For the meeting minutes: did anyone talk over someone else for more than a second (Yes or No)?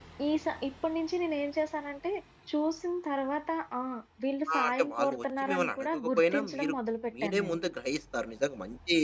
Yes